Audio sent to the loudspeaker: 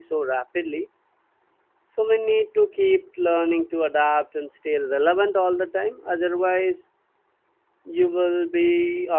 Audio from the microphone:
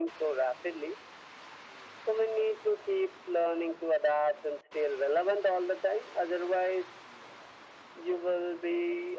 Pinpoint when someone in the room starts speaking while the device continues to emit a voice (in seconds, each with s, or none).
none